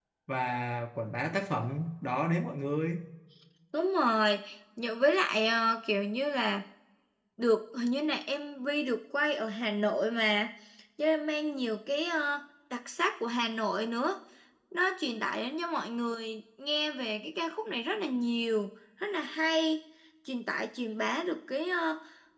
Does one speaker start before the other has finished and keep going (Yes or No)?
No